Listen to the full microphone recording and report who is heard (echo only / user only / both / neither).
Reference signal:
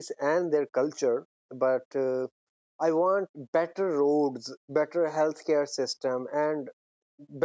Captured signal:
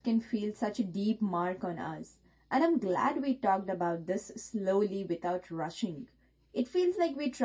user only